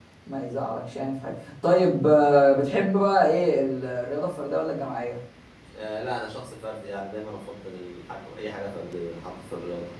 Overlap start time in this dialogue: none

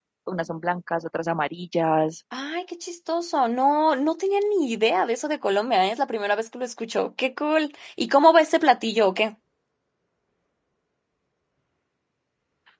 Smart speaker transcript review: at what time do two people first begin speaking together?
none

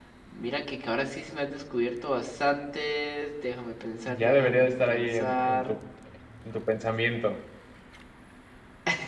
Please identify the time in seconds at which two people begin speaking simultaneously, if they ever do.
4.1 s

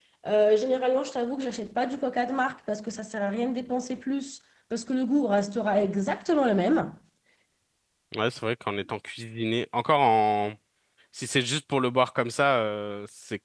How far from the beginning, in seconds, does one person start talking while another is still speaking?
none

